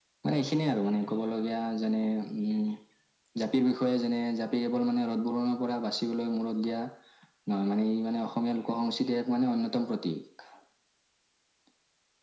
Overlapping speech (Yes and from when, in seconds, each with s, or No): No